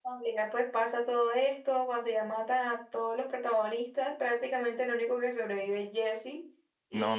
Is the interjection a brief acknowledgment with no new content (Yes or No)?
No